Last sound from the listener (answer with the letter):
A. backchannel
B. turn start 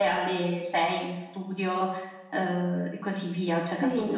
B